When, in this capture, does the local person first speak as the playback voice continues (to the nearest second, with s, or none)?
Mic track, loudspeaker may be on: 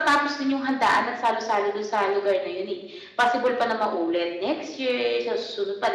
none